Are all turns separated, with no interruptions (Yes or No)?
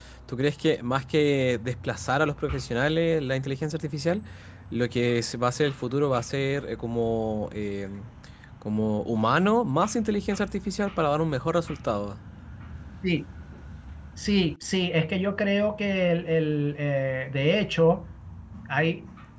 Yes